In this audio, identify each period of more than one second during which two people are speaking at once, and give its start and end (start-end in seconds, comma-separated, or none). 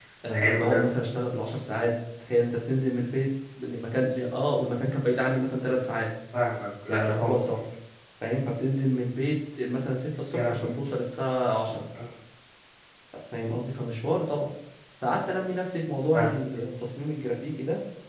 none